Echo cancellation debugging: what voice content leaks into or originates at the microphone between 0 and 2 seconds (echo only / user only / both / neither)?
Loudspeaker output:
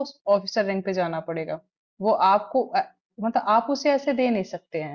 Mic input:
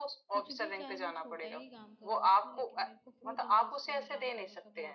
both